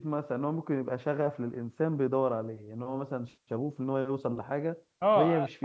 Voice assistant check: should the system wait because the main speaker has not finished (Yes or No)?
No